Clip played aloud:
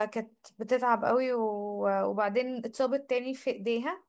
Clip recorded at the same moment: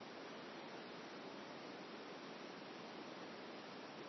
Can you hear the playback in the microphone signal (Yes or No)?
No